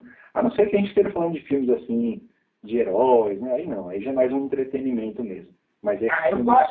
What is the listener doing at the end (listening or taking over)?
taking over